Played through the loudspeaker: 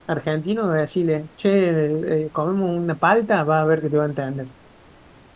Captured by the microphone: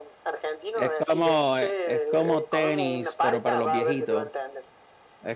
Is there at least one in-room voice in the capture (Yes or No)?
Yes